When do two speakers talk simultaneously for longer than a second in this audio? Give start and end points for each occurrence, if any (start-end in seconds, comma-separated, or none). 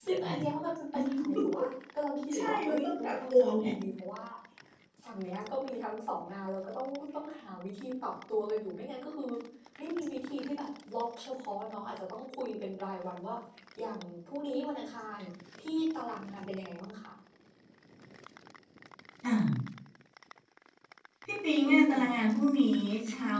2.3-3.6